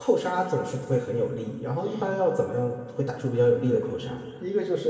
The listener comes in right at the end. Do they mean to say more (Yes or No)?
Yes